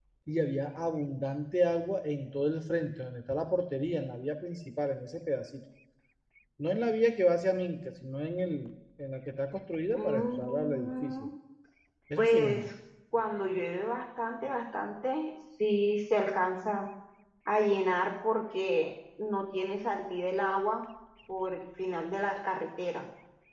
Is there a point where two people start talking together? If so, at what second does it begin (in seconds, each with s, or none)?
9.9 s